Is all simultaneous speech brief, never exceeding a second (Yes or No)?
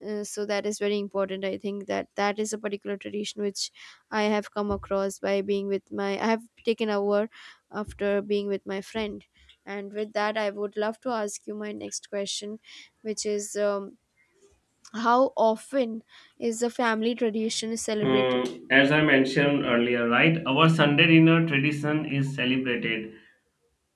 Yes